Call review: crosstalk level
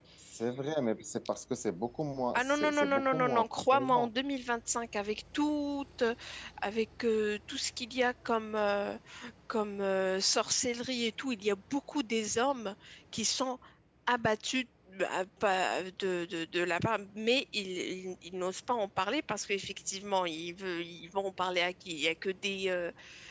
present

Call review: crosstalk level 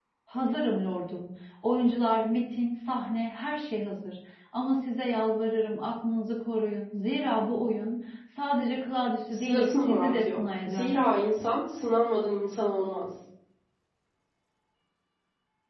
present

